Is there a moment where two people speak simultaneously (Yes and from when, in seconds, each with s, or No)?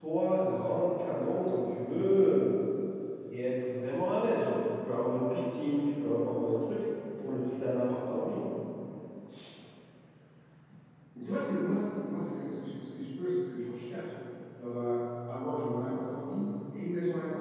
No